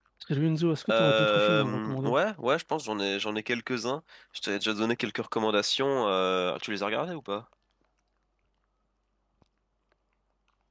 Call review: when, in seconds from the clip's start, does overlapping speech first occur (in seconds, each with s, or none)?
0.9 s